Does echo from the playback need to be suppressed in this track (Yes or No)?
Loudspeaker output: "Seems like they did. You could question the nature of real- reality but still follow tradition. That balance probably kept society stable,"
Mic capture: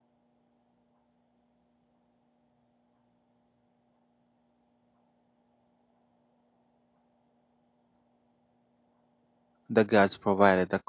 No